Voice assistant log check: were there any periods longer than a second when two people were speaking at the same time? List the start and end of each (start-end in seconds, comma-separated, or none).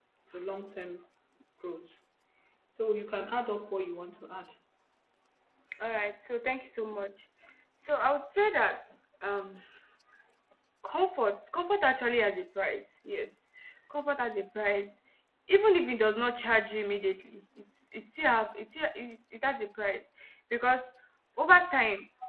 none